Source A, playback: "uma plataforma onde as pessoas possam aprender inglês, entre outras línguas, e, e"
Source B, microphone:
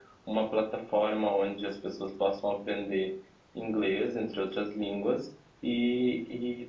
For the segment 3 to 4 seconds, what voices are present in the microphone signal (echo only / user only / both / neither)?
echo only